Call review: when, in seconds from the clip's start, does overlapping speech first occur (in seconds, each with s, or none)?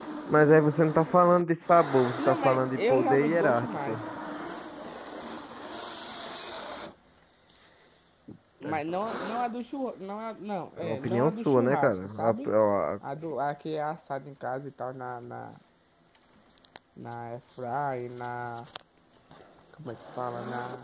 2.2 s